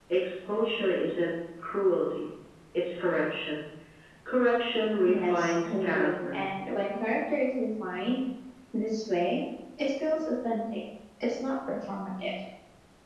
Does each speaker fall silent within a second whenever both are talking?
No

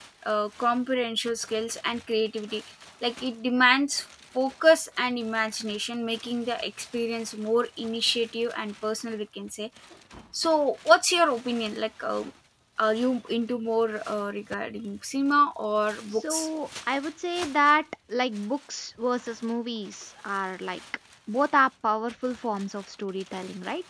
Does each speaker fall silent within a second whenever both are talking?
Yes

